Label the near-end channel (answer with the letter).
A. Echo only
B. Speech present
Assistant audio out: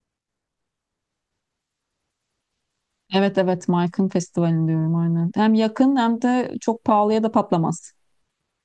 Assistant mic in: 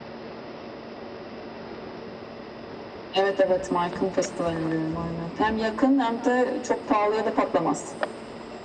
A